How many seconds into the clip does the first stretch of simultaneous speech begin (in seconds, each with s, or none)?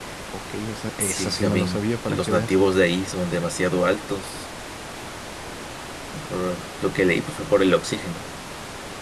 1.0 s